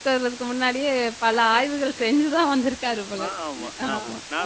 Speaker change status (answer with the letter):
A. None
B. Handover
B